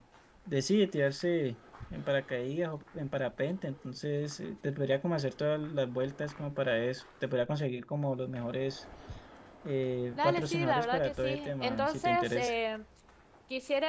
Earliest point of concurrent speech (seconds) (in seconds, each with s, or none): 10.2 s